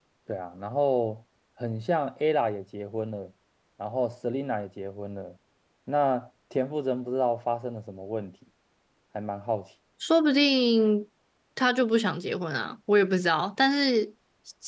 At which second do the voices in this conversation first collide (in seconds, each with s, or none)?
none